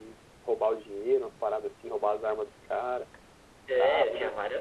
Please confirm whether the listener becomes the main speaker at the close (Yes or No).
Yes